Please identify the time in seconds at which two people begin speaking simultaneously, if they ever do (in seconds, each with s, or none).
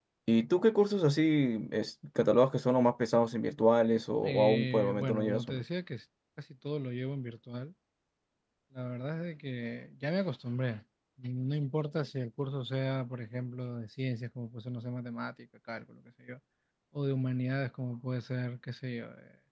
4.2 s